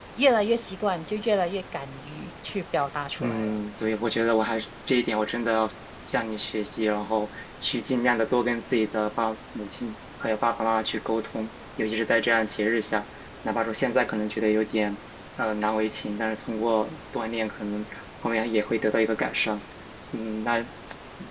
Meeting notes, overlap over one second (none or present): none